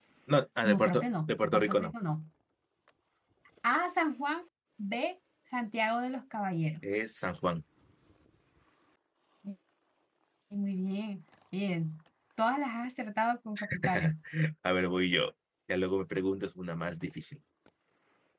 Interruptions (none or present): present